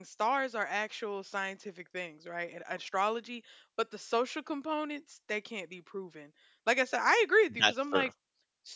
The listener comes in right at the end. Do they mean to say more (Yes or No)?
No